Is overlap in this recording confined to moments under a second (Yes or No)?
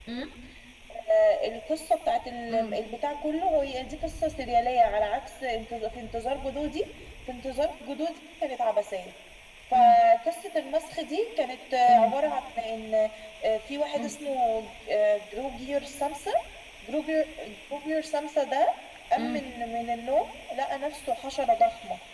Yes